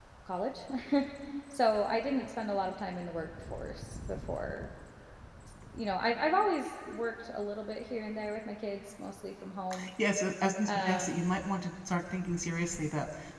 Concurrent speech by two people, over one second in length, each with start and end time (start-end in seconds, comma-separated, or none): none